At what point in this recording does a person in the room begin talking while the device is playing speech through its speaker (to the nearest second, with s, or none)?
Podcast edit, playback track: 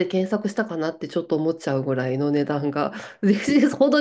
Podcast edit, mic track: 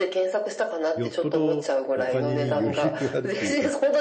1 s